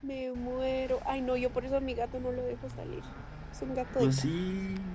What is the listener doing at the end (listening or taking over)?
taking over